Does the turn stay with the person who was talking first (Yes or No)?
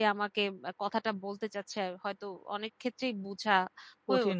No